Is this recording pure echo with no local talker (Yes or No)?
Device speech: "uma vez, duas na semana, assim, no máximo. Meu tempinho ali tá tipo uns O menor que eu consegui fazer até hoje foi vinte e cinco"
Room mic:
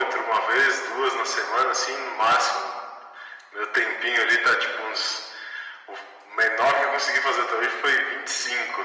Yes